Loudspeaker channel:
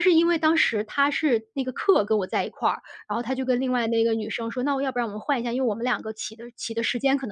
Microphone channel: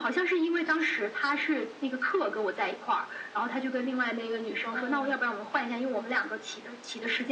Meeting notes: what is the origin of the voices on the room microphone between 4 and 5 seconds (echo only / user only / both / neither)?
both